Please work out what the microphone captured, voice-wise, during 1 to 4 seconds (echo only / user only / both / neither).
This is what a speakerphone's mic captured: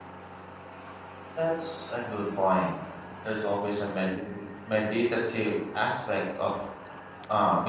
user only